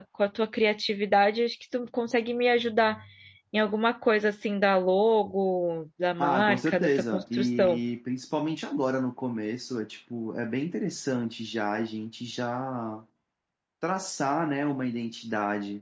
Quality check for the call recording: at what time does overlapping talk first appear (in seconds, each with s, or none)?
6.2 s